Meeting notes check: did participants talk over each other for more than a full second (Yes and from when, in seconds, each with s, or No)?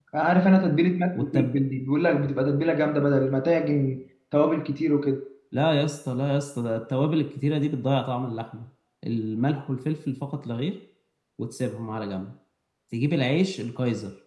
No